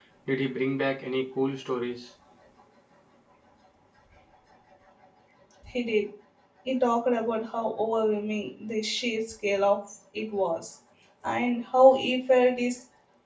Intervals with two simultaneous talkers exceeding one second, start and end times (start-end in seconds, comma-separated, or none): none